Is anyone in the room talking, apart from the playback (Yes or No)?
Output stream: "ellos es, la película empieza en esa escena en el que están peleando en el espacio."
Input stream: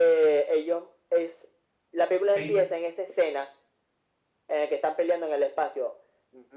Yes